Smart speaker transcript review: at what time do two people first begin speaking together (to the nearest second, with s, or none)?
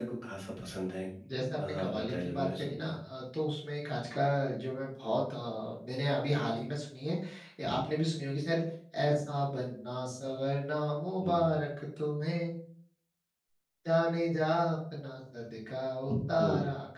2 s